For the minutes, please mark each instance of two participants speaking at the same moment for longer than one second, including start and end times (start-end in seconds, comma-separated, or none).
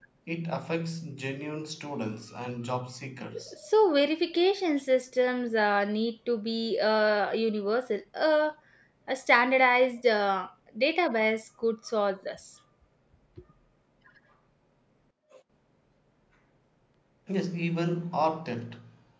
none